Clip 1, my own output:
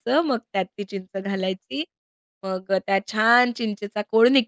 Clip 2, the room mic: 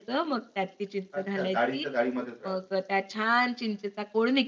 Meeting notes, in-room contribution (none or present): present